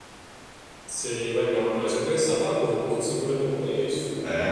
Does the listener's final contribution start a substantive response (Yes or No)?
Yes